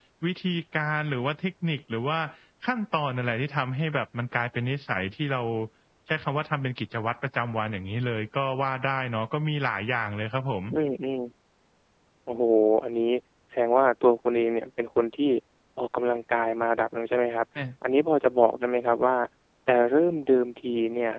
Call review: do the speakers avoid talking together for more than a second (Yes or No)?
Yes